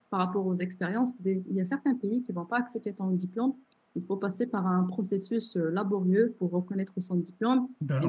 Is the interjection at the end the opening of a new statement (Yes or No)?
No